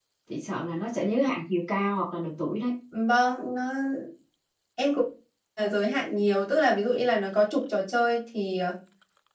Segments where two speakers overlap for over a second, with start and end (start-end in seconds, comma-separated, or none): none